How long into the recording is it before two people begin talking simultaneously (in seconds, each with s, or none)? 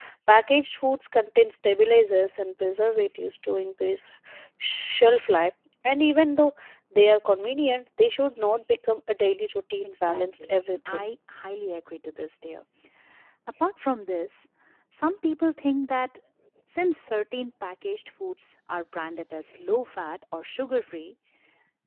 9.8 s